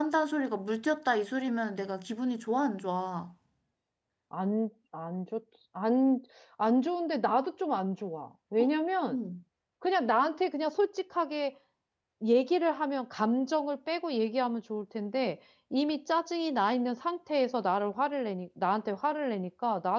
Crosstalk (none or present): none